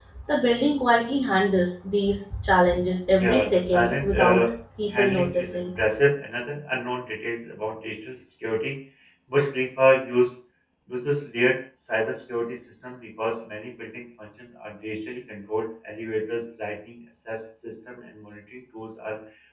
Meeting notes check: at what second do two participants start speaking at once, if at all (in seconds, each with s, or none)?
3.1 s